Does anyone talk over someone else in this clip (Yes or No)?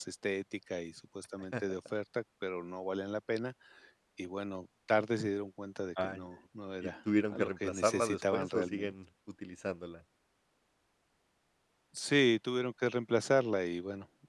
Yes